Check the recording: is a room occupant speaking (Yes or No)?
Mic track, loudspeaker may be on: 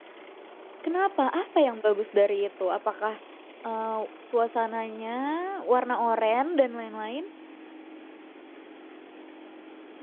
Yes